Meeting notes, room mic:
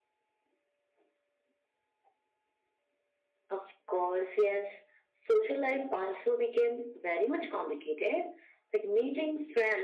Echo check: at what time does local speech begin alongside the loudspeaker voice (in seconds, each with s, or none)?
none